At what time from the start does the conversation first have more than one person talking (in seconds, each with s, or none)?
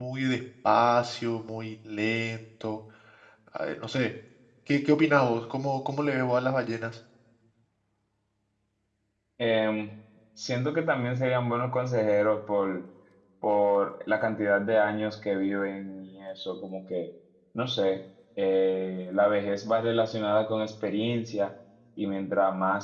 none